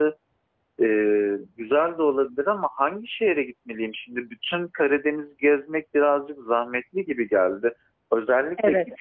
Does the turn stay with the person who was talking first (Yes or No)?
Yes